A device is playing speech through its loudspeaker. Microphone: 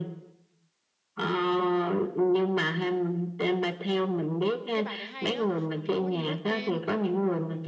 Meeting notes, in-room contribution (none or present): present